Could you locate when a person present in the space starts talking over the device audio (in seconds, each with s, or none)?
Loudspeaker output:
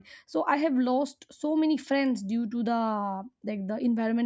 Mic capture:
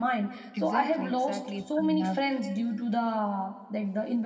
0.6 s